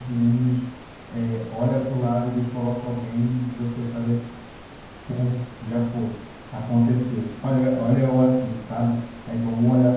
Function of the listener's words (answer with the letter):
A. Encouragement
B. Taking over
A